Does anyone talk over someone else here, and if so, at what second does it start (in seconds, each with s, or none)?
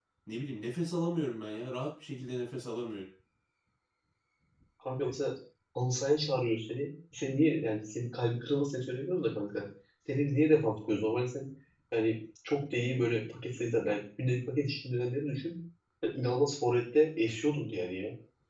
none